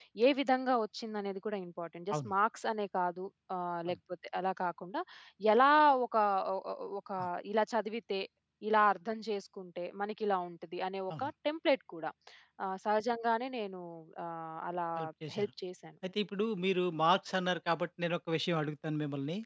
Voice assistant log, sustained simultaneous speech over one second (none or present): none